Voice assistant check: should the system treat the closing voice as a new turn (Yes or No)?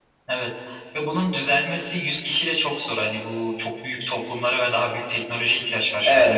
Yes